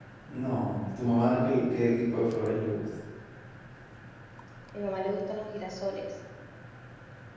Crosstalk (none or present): none